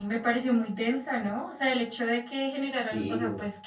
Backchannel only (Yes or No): Yes